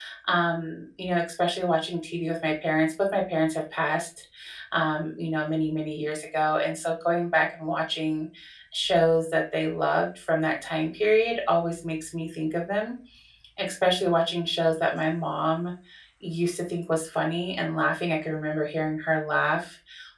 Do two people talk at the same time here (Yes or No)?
No